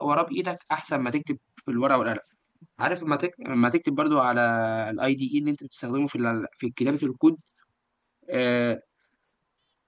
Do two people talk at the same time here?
No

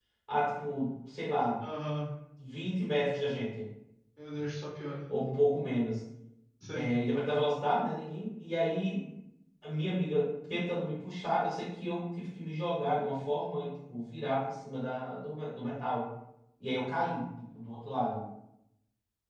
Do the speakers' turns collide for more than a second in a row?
No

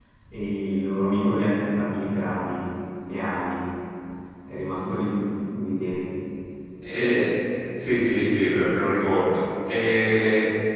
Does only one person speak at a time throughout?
Yes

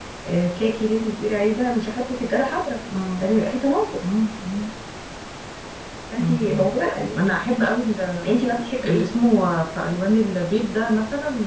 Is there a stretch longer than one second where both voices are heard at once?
No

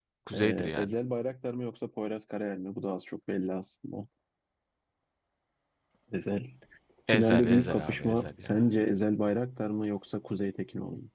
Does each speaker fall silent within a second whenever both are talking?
No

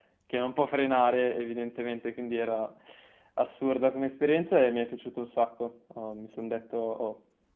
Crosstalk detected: No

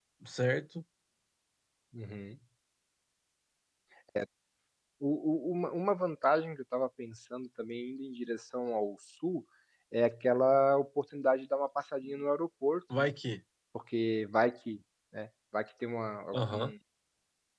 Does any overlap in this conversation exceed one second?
No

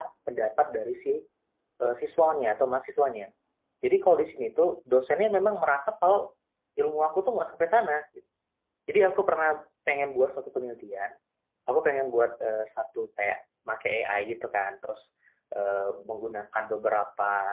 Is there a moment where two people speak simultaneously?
No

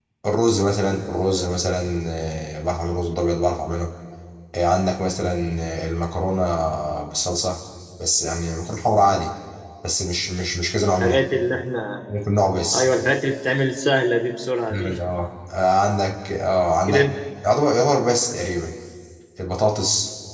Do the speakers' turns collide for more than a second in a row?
No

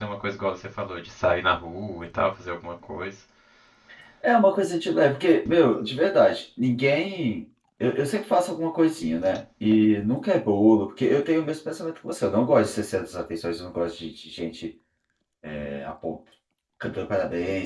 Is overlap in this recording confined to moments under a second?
Yes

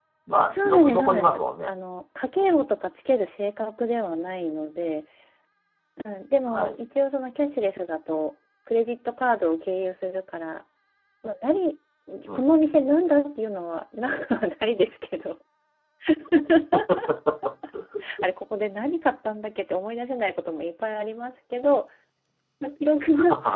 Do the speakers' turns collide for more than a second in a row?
Yes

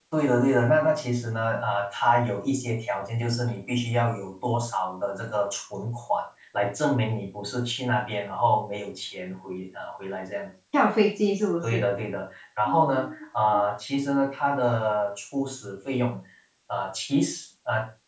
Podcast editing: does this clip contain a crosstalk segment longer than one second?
No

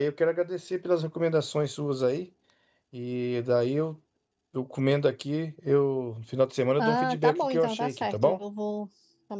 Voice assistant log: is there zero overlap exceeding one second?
No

